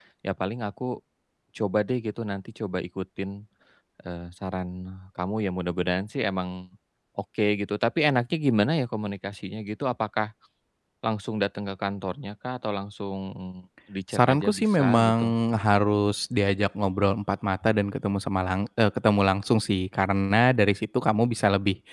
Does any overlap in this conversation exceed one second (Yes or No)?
Yes